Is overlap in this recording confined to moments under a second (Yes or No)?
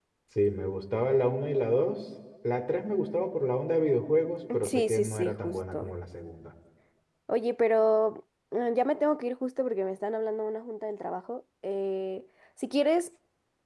No